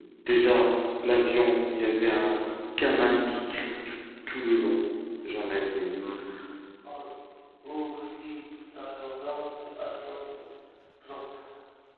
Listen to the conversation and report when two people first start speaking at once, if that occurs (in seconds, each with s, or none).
none